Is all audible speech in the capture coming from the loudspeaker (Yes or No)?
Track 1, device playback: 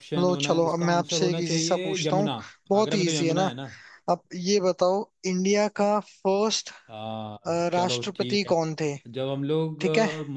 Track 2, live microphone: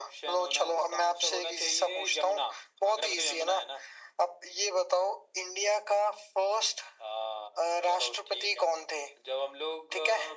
Yes